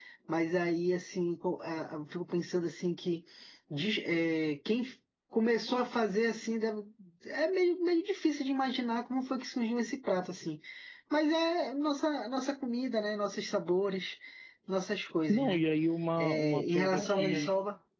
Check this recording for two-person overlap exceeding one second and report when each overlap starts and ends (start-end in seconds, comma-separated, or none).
16.2-17.5